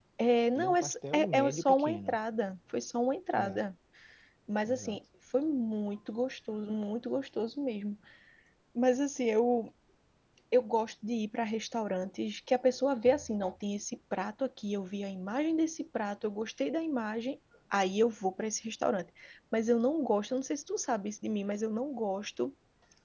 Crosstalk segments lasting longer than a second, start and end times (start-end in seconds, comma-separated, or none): 0.6-2.2